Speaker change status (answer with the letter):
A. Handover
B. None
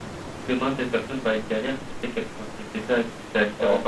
B